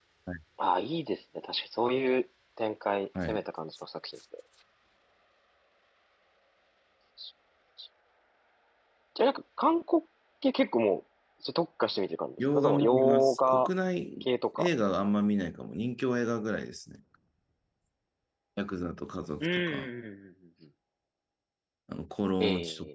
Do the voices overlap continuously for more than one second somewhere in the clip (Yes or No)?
Yes